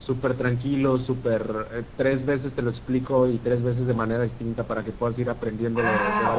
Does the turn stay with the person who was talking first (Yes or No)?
No